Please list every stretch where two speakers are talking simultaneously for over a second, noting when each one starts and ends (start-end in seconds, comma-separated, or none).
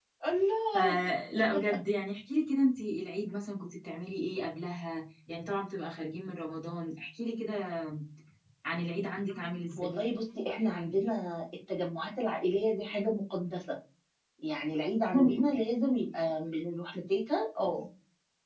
none